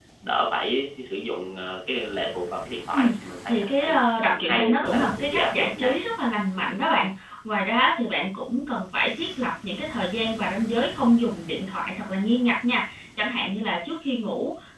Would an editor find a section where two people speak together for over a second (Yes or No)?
Yes